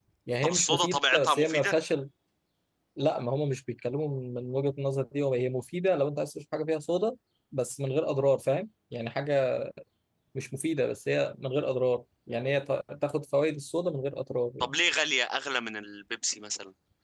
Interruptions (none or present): present